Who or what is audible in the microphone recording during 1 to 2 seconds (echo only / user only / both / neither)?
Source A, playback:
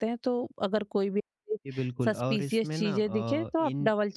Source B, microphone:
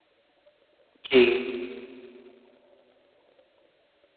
user only